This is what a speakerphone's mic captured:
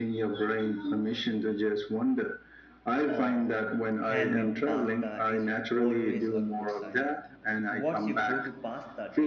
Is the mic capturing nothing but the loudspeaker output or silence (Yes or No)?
No